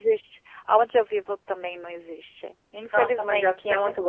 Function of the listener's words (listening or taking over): taking over